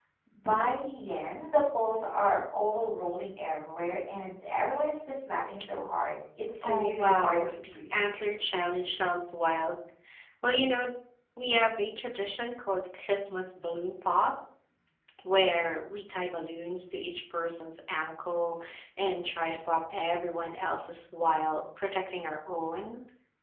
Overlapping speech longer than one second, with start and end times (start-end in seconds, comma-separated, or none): 6.6-7.9